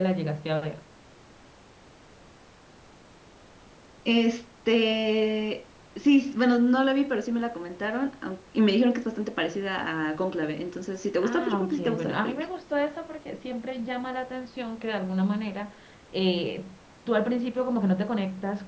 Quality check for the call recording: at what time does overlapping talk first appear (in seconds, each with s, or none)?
11.2 s